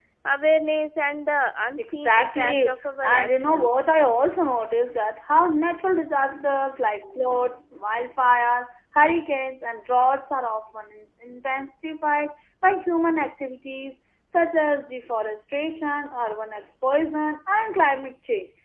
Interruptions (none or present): present